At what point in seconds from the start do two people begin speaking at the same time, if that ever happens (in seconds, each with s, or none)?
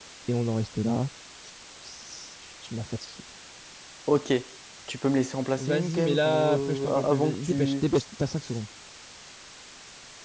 5.6 s